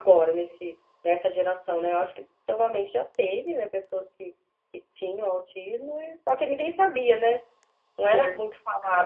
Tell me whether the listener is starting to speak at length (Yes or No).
No